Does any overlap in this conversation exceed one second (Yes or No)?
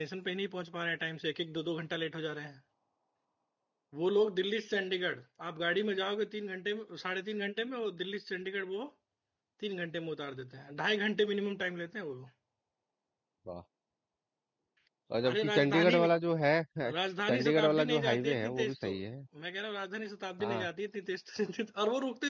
Yes